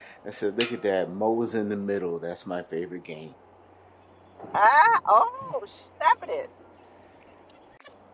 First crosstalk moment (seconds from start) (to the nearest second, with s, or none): none